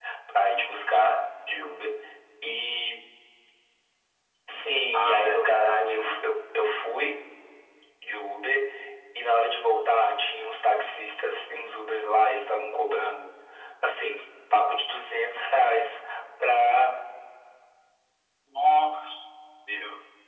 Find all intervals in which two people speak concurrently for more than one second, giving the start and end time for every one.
4.9-6.2

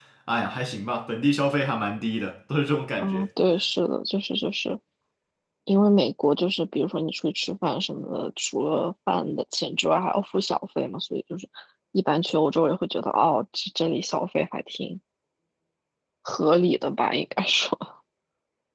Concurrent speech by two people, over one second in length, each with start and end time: none

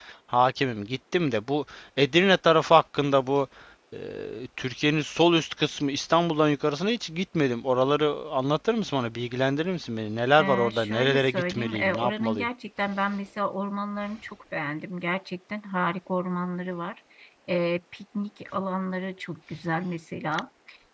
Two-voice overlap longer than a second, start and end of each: 10.4-12.5

